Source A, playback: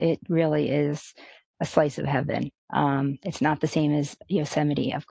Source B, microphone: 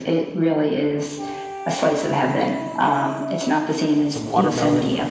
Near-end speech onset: 4.1 s

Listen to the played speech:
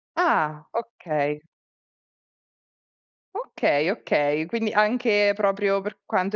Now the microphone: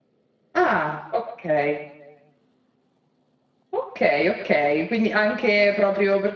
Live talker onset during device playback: none

